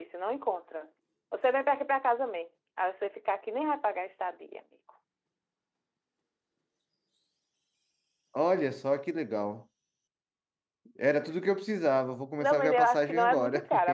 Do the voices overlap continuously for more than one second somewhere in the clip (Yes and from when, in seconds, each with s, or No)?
Yes, from 12.4 s